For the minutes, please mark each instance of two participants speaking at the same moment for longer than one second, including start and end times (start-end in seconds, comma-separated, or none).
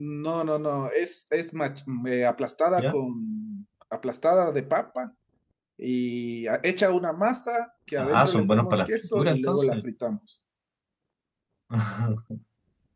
8.0-9.8